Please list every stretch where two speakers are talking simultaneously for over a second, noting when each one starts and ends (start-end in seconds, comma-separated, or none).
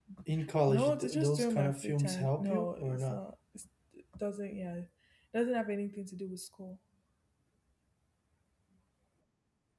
0.7-3.2